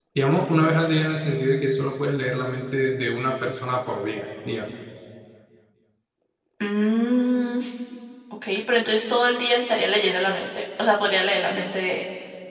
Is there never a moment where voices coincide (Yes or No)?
Yes